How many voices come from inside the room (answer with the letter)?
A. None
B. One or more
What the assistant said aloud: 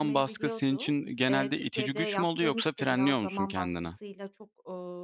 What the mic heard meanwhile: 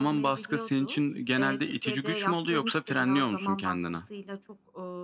A